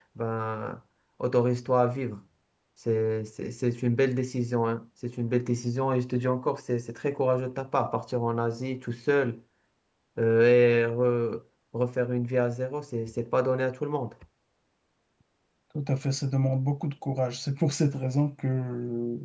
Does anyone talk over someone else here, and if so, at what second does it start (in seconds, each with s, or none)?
none